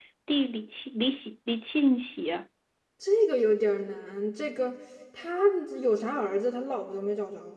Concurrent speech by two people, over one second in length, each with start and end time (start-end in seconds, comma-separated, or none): none